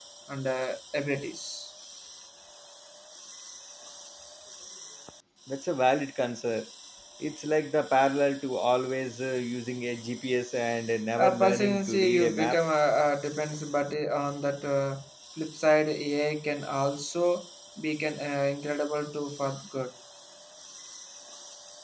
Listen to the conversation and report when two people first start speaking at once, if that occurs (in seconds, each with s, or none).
11.2 s